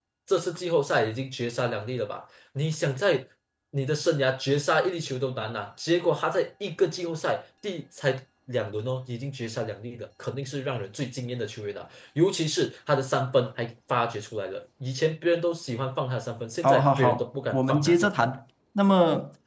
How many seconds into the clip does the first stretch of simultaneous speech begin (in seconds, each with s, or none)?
16.6 s